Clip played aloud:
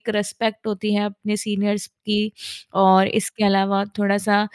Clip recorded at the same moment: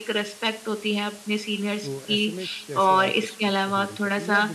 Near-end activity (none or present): present